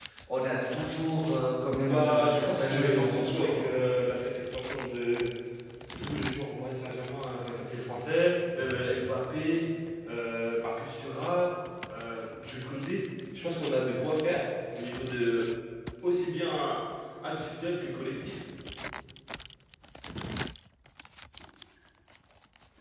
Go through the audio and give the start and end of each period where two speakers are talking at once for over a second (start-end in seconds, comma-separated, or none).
1.9-3.6